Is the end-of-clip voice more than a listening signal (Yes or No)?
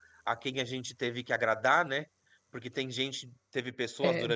No